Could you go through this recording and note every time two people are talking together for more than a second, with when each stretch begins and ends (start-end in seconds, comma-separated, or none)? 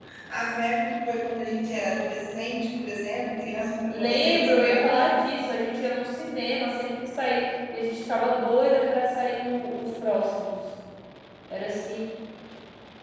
3.9-5.3